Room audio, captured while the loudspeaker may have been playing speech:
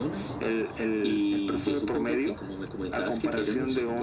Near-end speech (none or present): none